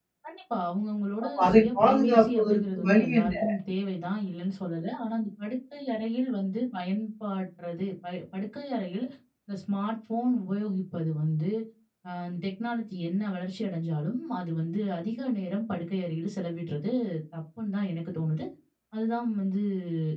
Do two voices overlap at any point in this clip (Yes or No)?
Yes